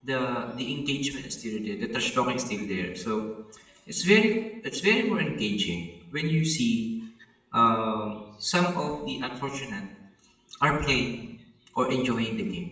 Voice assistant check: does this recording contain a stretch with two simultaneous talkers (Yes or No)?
No